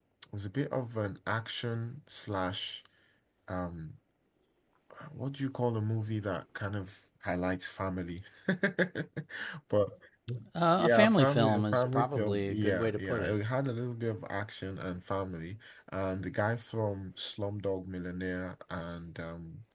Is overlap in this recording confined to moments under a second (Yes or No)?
No